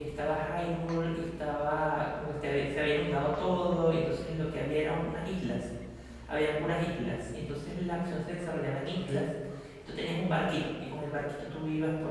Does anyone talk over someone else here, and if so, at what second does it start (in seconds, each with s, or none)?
none